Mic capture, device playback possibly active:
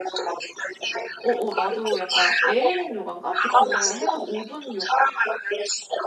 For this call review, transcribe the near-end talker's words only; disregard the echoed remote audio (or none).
어, 어, 나도 약간 에일린 요가인가? 아무튼 그거 해가지고 5분 요,